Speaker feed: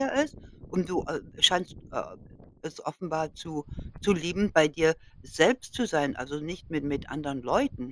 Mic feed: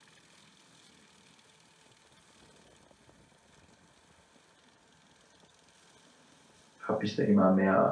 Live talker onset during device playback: 6.8 s

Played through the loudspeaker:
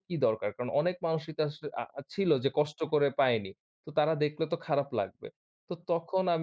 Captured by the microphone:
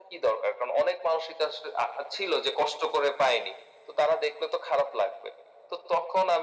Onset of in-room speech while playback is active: none

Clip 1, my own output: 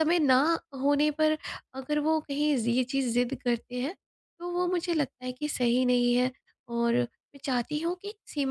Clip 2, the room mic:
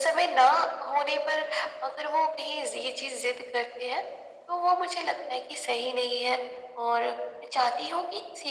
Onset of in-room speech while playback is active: none

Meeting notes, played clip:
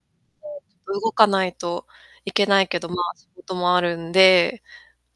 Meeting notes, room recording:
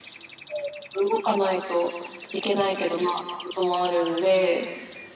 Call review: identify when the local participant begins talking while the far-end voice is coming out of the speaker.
none

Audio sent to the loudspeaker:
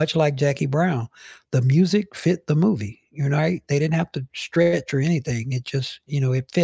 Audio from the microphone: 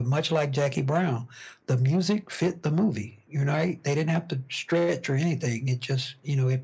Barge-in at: none

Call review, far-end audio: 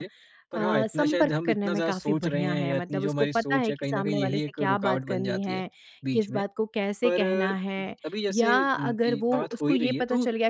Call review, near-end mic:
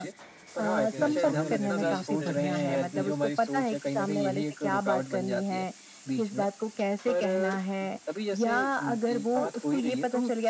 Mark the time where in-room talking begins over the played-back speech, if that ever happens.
0.9 s

